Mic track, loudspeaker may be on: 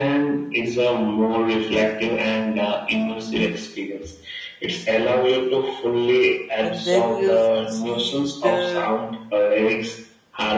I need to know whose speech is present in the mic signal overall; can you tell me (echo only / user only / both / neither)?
both